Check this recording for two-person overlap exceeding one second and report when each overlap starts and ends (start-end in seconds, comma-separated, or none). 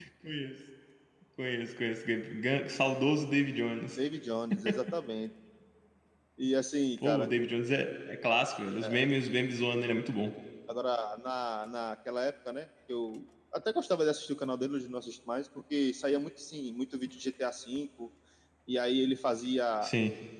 none